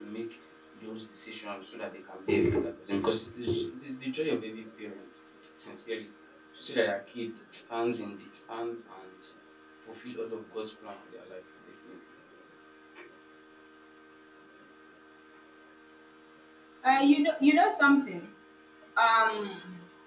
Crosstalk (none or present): none